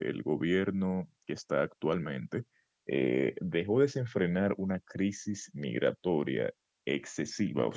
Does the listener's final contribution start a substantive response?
No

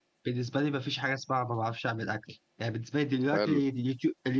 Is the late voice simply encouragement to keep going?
Yes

